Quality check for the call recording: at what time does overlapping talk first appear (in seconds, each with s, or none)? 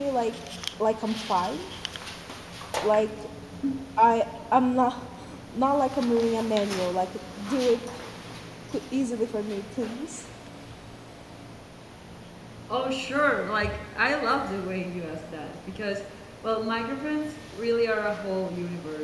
none